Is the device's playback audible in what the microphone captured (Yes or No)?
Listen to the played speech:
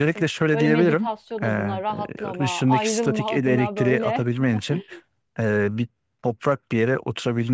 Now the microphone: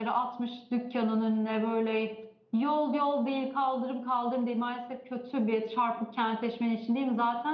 No